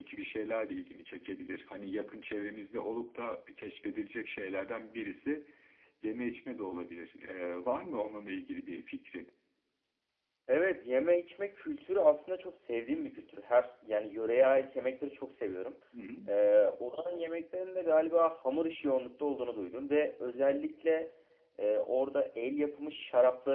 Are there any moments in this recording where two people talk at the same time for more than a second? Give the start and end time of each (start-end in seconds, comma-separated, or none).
none